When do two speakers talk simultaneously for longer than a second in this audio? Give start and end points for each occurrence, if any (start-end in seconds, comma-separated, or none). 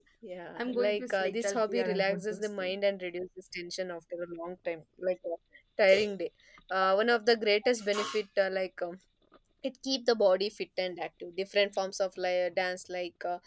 0.6-2.7